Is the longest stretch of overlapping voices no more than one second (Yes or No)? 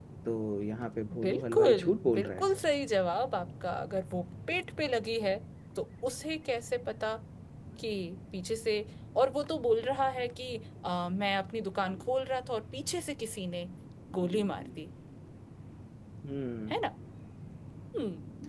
No